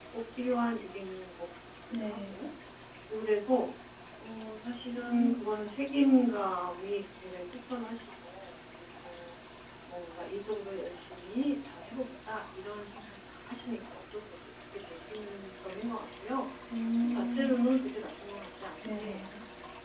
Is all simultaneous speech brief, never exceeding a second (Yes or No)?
Yes